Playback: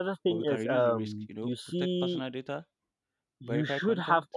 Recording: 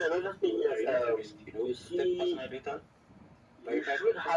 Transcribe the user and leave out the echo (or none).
none